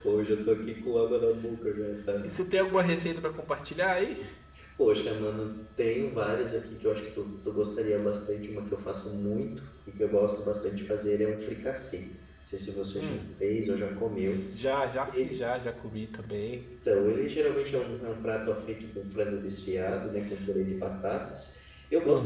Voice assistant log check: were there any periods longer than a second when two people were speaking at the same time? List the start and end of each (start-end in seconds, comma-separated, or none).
none